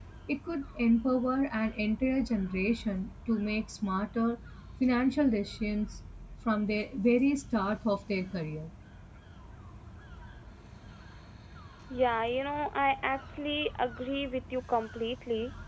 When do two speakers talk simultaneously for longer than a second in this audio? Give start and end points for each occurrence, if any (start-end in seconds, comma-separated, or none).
none